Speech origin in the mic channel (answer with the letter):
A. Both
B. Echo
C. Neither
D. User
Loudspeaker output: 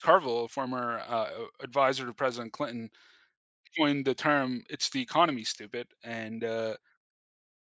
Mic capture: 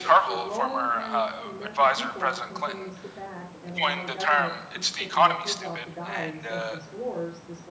A